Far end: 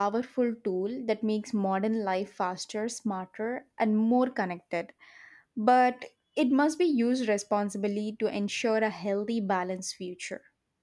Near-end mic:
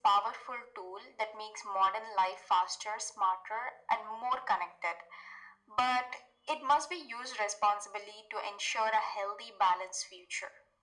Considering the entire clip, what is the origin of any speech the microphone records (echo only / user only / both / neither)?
echo only